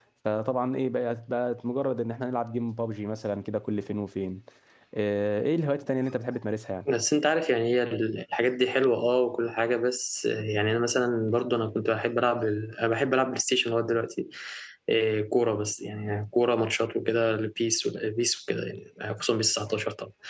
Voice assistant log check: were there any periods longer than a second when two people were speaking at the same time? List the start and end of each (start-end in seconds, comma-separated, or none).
none